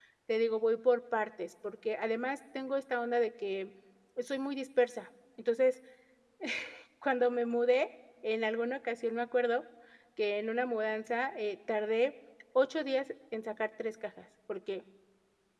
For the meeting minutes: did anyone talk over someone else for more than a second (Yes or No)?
No